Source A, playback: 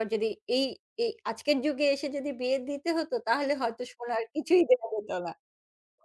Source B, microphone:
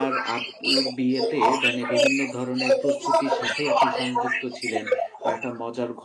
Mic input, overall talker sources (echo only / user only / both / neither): both